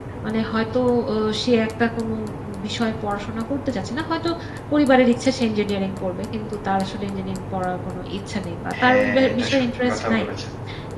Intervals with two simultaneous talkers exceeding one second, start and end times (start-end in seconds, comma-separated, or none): 8.8-10.2